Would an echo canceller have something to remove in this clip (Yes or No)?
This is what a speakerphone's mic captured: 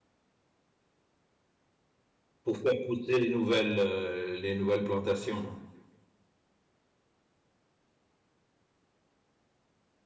No